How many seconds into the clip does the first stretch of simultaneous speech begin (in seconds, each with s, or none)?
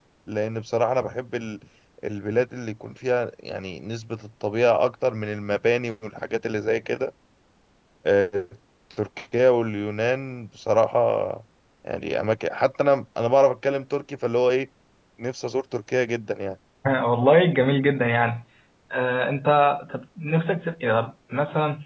none